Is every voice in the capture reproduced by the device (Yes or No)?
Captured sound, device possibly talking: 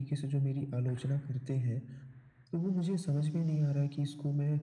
Yes